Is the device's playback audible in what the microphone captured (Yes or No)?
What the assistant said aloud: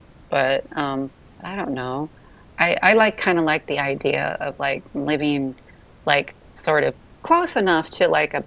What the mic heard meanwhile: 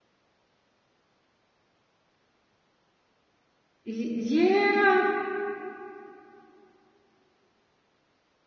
No